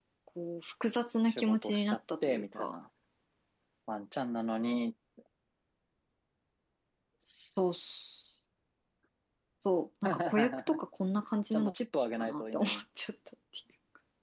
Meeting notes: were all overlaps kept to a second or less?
No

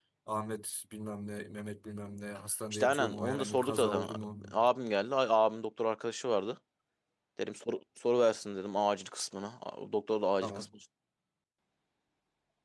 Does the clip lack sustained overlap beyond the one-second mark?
No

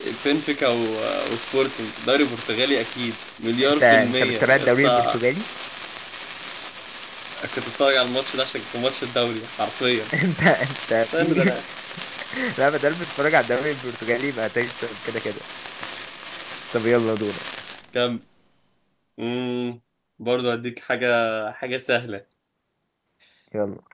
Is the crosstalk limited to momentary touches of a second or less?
No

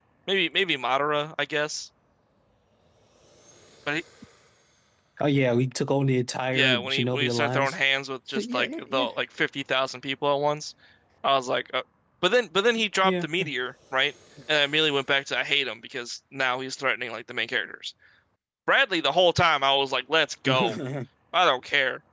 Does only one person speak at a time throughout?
No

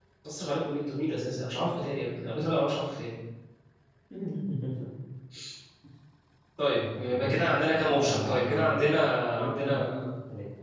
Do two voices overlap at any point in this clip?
Yes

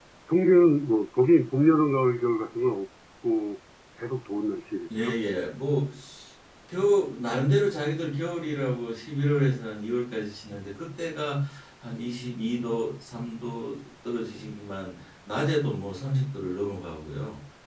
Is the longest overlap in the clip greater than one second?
No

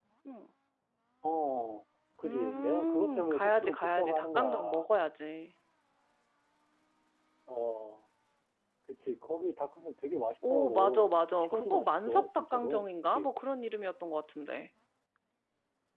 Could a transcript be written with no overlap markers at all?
No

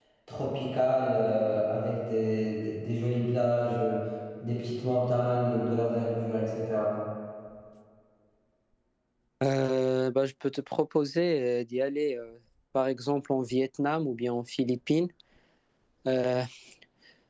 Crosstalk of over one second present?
No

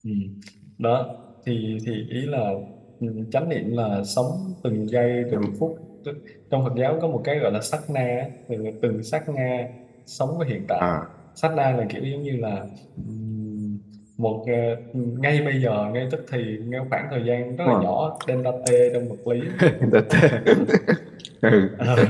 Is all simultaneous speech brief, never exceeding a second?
Yes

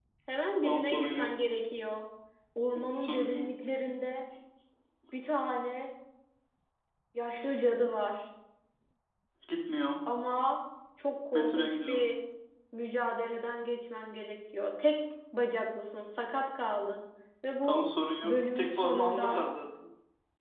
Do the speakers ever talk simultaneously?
Yes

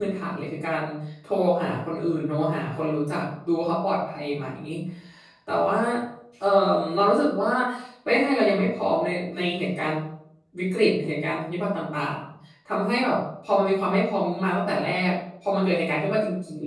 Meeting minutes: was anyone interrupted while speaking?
No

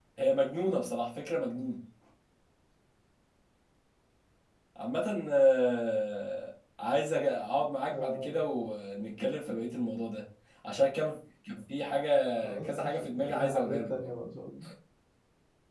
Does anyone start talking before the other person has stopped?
Yes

